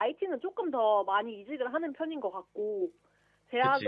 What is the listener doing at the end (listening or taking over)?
listening